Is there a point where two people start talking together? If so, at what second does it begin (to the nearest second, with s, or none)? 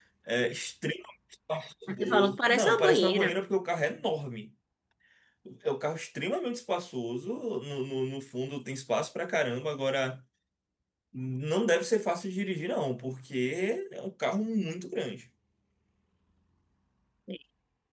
2 s